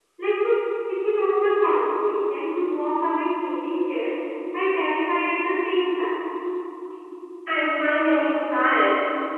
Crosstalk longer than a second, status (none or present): none